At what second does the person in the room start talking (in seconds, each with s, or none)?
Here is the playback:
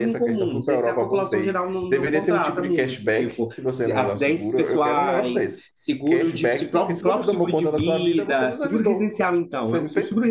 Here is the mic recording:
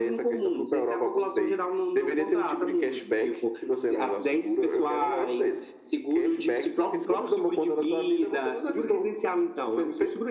none